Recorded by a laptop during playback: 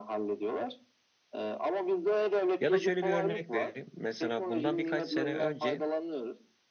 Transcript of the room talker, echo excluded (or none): Ya da şöyle bir örnek vereyim. Mesela bundan birkaç sene önce